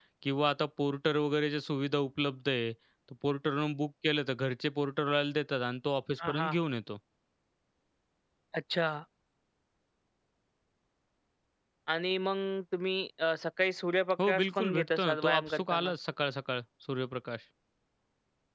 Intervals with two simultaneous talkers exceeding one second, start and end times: 14.3-15.9

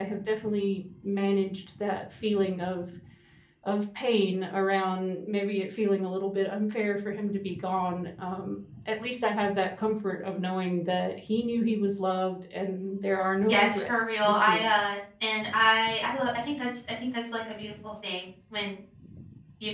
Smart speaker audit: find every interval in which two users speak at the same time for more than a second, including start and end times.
13.5-14.8

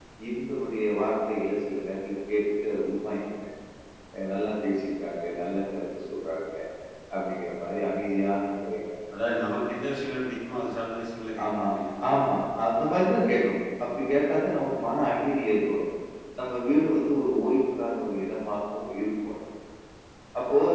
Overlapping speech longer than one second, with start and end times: none

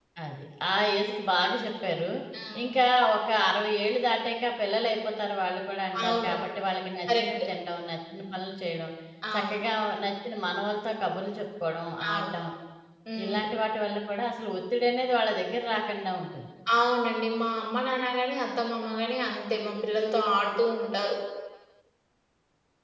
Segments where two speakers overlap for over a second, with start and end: none

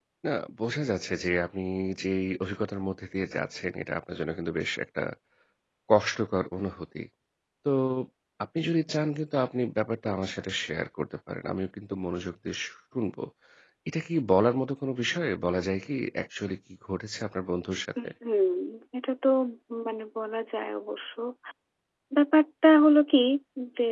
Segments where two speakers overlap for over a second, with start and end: none

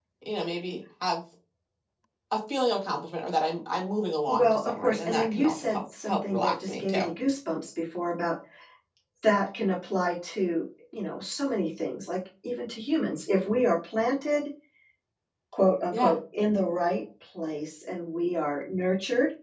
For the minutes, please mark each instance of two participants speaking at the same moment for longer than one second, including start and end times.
4.3-7.1

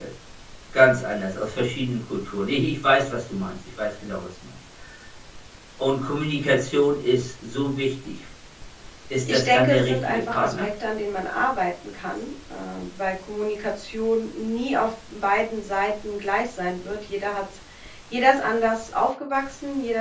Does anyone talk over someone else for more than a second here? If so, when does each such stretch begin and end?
9.2-10.7

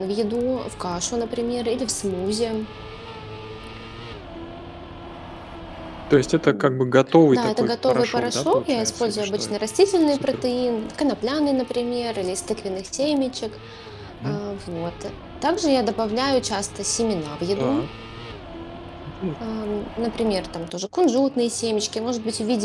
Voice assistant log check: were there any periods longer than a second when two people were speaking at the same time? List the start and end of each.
7.3-9.5

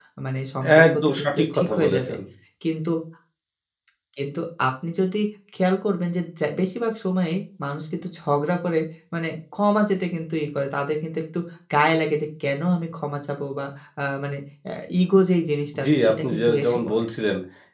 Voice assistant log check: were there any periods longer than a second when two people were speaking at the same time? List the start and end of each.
0.8-2.1, 15.8-17.0

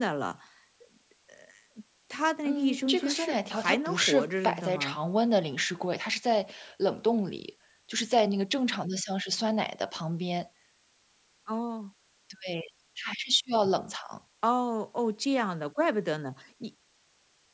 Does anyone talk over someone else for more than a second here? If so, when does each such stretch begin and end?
2.4-5.0

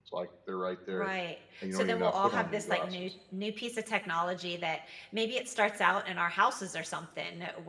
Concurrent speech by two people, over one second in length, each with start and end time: 1.6-3.1

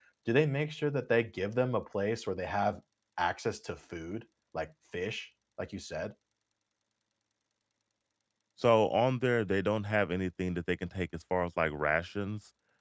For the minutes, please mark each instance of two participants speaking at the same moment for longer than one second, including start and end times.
none

